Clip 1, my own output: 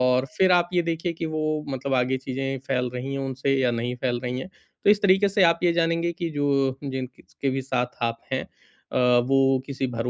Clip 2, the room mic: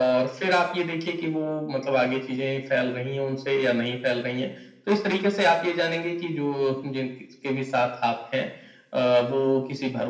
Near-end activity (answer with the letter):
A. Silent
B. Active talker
A